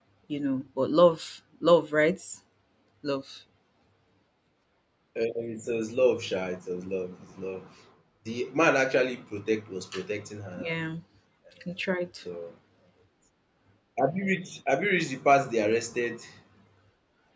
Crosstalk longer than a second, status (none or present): none